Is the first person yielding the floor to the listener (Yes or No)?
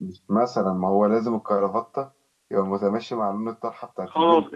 Yes